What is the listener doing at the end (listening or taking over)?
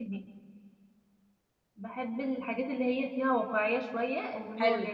taking over